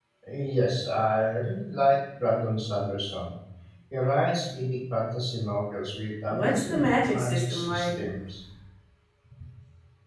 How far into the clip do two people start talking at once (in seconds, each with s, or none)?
6.3 s